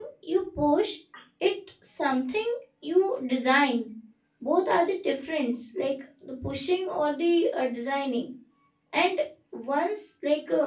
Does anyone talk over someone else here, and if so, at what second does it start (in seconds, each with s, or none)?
none